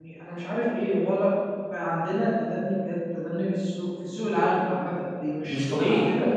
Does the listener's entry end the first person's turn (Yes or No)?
No